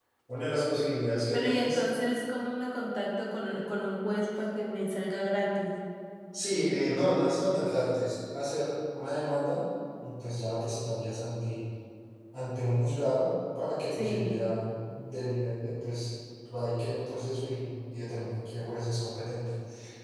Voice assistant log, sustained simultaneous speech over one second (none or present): none